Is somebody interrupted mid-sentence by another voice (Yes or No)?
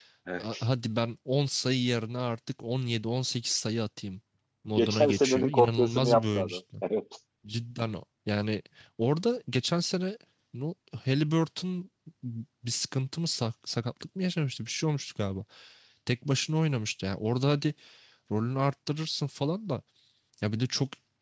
Yes